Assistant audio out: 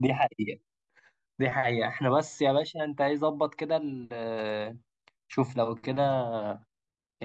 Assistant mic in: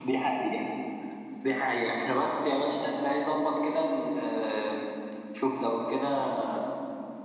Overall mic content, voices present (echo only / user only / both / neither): echo only